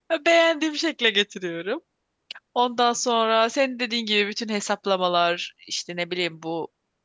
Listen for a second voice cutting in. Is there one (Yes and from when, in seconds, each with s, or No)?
No